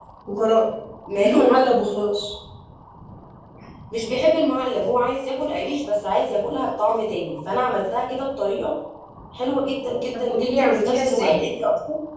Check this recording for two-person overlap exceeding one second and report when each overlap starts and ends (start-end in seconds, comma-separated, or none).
10.1-11.4